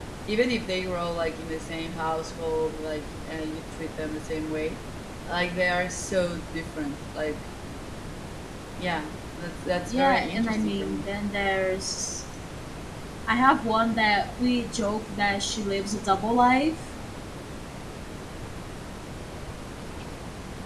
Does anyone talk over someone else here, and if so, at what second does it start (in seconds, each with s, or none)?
9.9 s